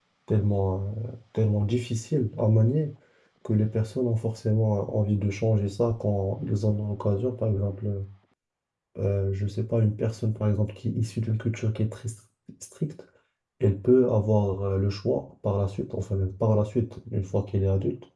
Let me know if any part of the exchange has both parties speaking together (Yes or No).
No